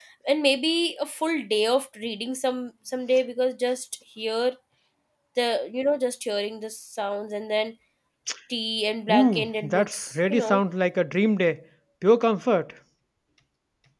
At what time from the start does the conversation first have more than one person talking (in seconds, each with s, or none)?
9.1 s